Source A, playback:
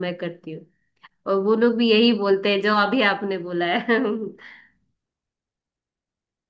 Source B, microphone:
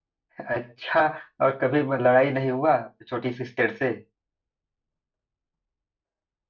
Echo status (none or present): none